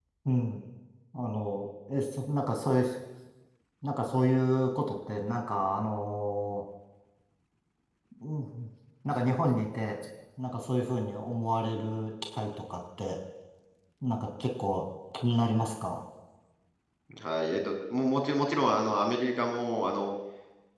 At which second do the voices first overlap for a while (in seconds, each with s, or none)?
none